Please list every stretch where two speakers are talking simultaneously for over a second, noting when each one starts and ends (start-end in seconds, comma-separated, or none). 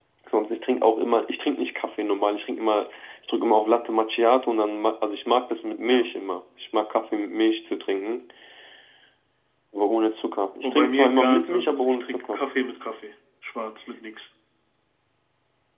10.6-12.4